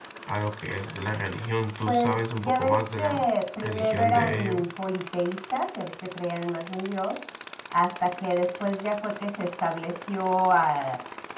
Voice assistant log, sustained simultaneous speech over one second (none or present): present